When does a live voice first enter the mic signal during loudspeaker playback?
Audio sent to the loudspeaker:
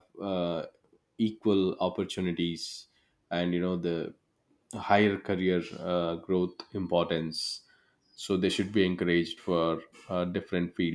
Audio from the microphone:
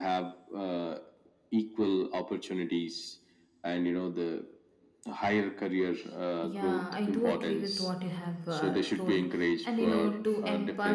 6 s

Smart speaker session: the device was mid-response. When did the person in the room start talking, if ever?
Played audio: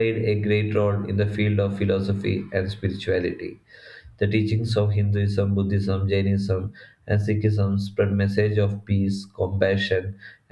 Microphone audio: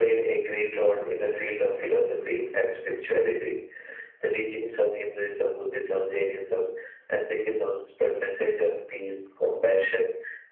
none

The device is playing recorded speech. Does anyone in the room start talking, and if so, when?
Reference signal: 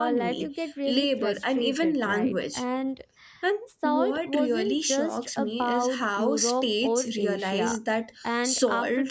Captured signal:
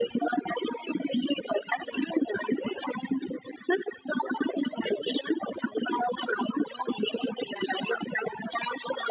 none

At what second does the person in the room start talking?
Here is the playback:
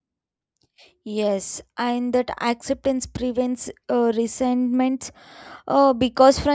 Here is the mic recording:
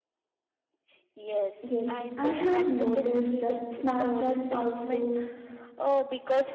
2 s

